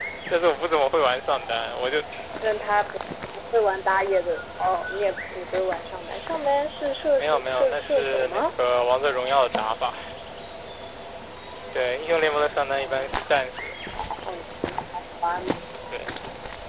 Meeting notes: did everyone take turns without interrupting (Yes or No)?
No